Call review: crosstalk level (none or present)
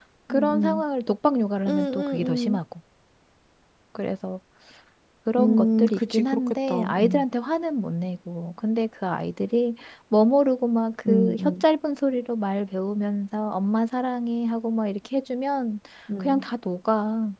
present